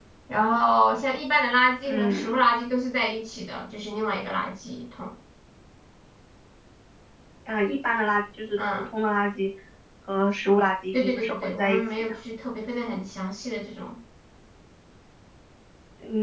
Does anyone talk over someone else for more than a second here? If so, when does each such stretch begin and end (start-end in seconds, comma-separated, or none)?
10.9-12.1